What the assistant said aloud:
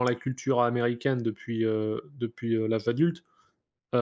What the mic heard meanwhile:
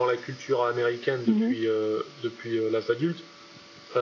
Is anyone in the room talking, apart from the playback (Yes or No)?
Yes